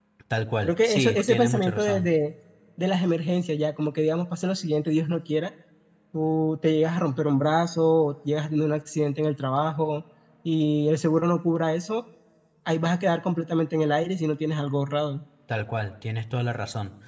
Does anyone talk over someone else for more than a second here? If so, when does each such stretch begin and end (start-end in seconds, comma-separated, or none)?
0.6-2.1